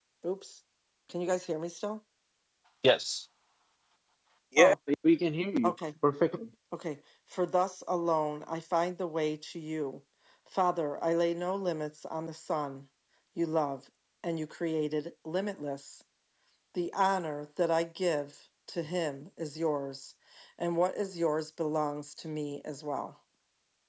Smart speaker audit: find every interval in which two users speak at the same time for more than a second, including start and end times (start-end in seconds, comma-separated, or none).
none